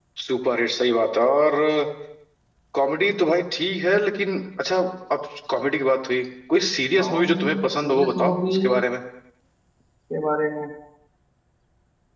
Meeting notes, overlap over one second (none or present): present